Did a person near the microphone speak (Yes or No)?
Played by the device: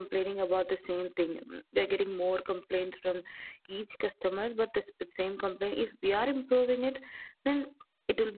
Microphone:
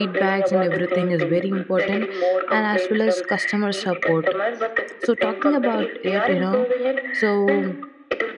Yes